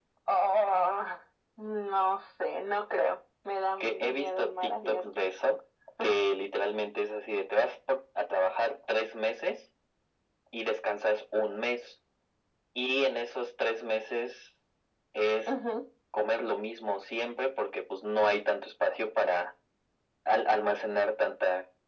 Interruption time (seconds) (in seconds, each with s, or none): 3.8 s